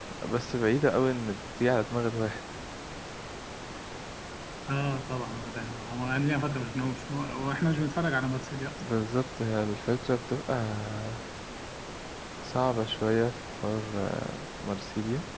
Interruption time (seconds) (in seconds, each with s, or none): none